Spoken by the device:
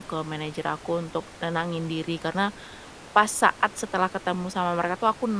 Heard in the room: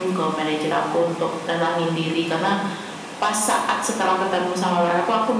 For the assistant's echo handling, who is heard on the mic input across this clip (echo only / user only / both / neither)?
echo only